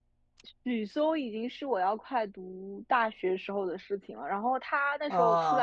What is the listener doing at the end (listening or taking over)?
listening